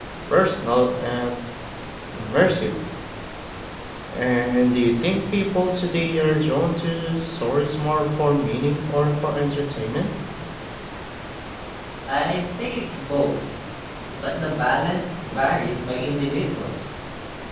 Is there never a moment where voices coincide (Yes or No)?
Yes